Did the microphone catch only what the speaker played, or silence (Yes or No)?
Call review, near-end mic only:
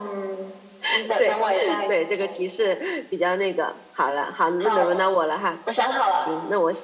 No